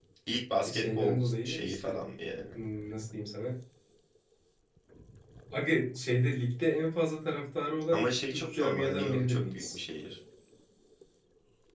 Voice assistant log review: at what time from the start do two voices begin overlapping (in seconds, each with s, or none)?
0.7 s